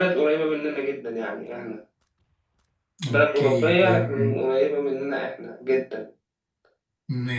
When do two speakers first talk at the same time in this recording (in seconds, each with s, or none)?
3.1 s